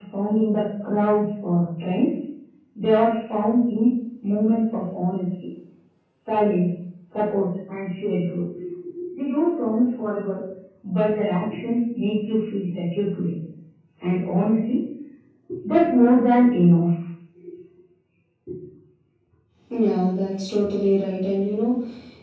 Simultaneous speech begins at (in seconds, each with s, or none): none